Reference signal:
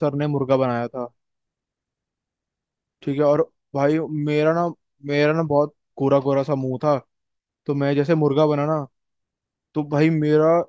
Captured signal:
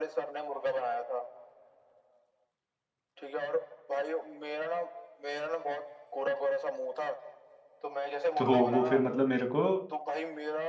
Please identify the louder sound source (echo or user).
user